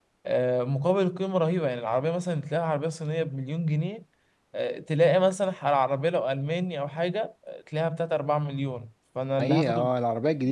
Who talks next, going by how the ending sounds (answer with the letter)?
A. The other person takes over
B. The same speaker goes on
A